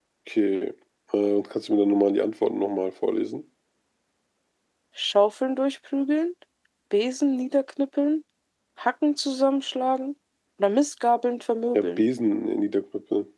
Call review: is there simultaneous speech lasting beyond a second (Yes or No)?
No